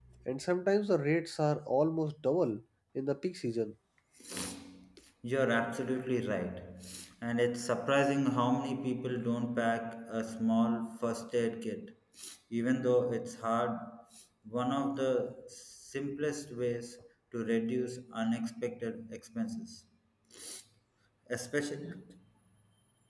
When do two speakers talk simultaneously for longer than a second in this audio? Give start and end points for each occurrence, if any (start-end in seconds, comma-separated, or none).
none